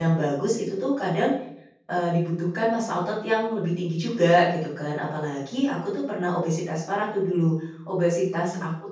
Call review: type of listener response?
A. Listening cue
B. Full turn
A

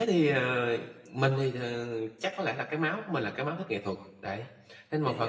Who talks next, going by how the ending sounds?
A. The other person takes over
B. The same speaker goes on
B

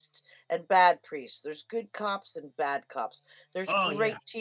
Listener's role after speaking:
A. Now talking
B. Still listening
B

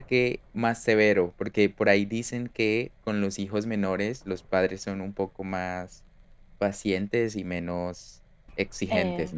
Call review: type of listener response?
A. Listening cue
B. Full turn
B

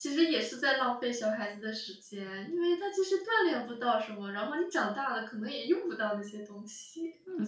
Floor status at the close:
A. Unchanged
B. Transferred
B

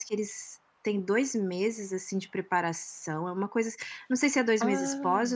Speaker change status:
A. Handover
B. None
B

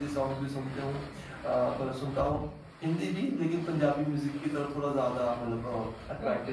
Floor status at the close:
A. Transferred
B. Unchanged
A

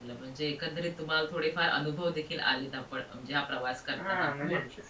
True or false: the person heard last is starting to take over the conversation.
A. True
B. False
A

